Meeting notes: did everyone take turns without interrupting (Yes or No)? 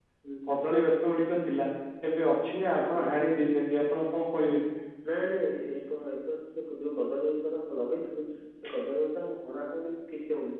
Yes